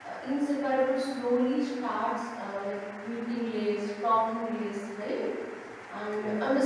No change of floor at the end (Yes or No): Yes